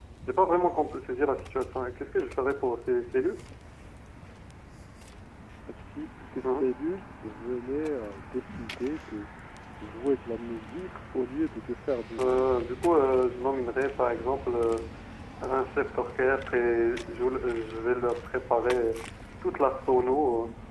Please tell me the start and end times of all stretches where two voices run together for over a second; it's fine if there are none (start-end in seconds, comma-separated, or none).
none